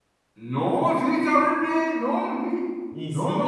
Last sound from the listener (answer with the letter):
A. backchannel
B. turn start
B